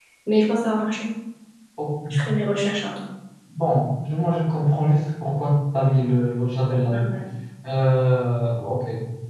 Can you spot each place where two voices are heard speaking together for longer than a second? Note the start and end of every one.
none

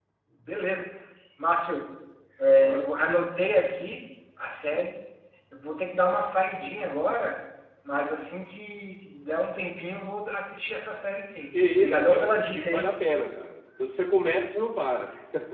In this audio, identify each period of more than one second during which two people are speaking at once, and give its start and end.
11.5-13.0

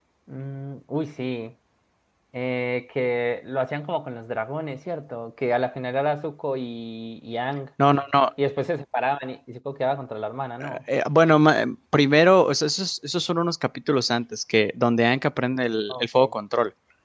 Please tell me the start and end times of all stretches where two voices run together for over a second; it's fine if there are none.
none

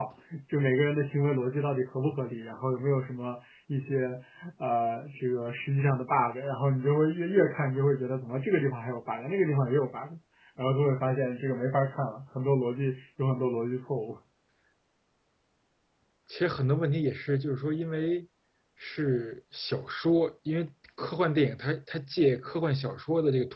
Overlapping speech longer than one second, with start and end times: none

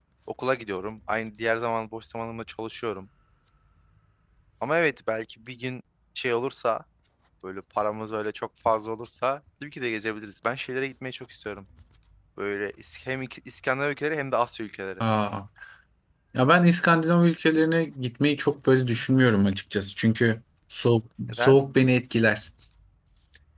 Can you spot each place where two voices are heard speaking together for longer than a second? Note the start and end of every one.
none

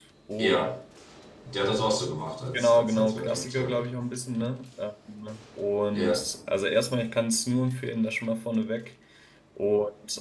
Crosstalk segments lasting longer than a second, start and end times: 2.5-3.9

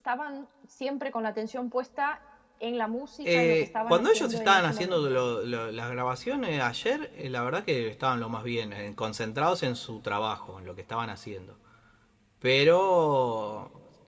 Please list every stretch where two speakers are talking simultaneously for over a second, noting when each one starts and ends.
3.2-5.1

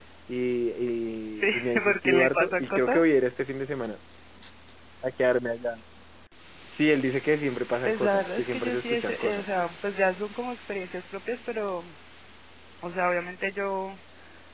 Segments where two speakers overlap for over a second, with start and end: 1.3-3.0, 7.8-9.5

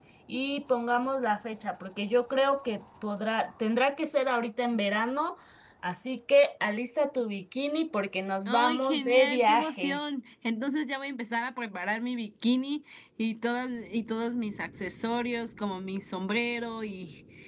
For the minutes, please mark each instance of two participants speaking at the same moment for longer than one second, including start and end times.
8.4-10.0

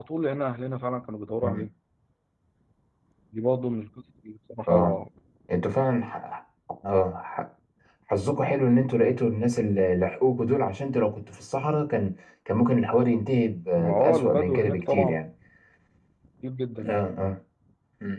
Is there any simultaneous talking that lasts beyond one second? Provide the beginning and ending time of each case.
13.8-15.2

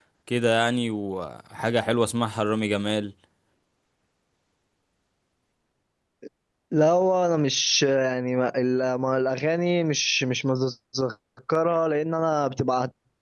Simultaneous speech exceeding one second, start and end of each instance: none

